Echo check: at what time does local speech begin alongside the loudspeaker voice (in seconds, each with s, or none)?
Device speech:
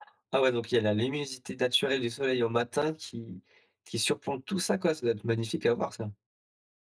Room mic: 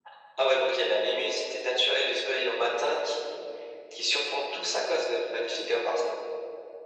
none